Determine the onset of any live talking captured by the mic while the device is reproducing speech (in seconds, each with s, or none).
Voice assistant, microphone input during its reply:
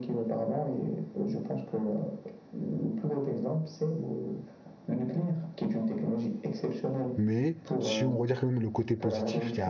7.1 s